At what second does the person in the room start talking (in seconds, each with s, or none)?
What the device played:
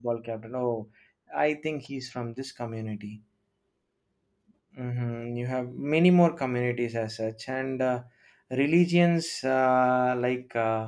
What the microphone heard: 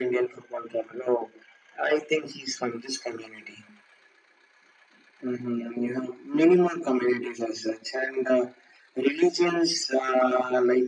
none